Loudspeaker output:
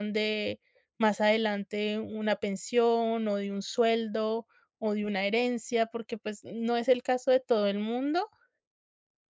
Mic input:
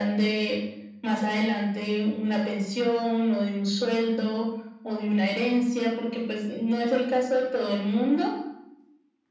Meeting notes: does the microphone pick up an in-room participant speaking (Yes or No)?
No